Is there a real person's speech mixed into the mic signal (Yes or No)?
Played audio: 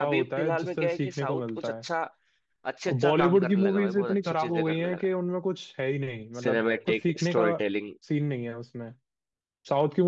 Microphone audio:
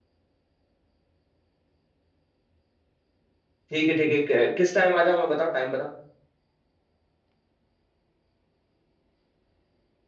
Yes